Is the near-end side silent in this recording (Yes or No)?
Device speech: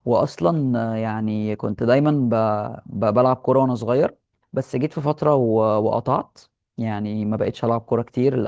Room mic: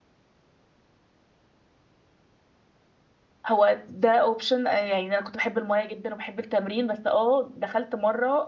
No